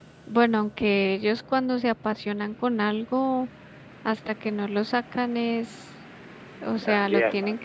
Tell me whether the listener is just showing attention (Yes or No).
Yes